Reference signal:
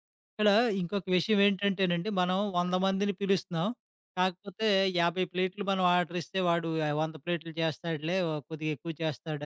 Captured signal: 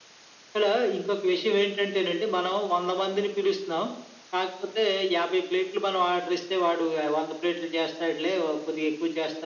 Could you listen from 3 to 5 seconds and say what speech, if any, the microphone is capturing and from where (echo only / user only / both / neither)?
echo only